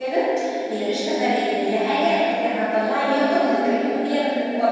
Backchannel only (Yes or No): Yes